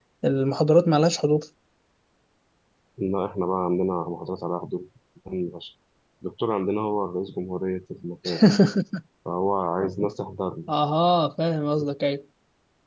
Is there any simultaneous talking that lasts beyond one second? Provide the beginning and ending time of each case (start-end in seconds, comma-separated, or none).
none